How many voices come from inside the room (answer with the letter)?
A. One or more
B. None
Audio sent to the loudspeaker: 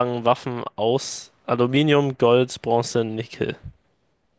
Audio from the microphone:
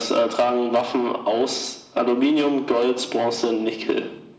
B